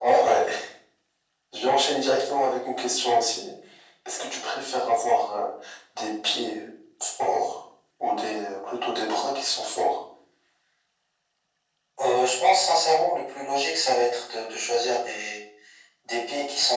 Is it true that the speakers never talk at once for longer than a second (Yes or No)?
Yes